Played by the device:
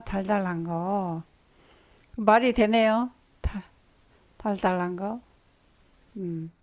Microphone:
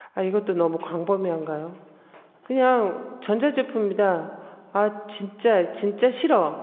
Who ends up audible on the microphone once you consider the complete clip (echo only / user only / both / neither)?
user only